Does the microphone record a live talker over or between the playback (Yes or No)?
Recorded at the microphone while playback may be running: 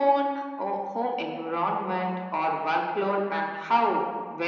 No